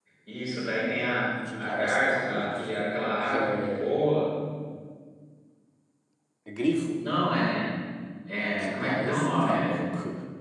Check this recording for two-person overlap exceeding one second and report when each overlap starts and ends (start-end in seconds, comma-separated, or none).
1.6-4.1, 8.6-9.8